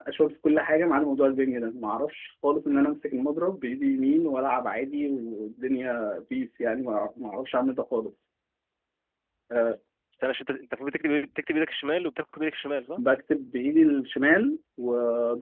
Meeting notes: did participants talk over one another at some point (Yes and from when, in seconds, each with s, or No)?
No